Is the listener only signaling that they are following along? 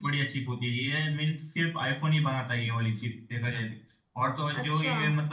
Yes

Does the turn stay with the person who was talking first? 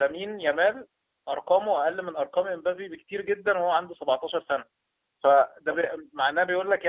Yes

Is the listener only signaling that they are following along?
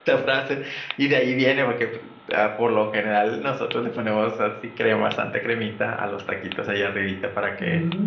No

